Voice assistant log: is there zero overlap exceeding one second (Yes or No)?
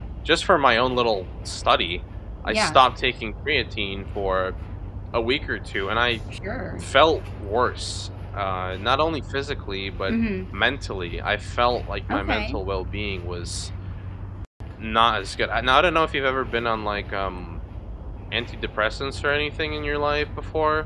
Yes